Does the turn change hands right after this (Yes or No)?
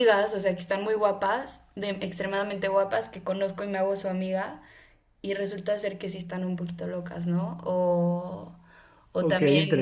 Yes